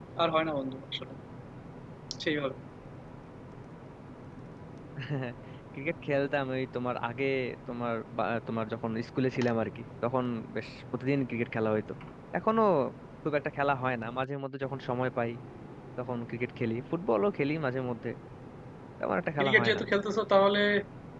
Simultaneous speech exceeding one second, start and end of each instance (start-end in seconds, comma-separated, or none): none